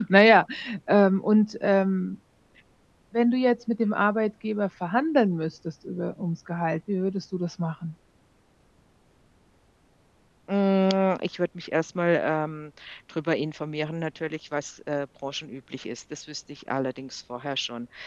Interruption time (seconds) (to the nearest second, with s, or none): none